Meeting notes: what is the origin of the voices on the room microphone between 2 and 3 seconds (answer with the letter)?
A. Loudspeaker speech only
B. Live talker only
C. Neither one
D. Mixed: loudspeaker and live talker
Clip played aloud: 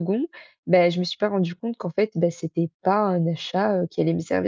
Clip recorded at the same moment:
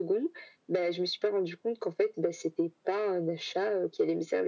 A